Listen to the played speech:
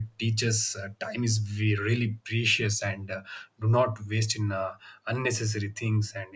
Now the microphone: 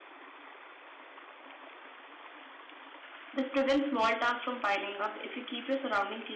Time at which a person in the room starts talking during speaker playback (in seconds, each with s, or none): 3.3 s